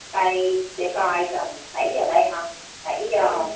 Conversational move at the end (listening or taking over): taking over